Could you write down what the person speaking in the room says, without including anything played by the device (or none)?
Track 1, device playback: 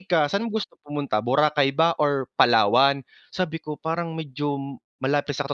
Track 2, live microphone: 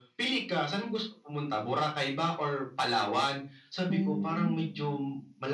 Hmm.